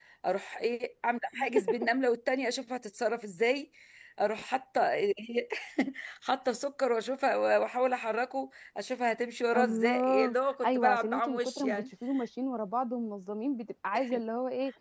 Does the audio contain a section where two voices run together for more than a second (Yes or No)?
Yes